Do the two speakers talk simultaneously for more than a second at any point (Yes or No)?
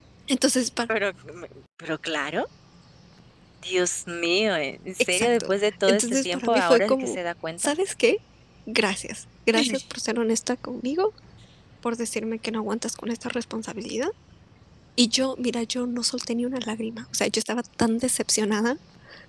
Yes